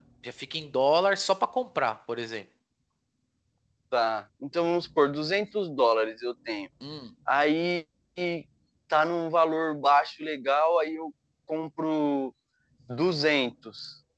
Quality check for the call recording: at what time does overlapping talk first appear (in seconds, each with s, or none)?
none